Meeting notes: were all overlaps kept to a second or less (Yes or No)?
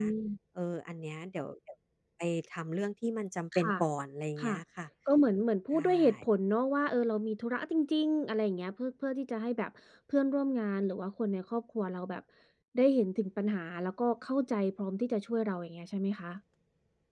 Yes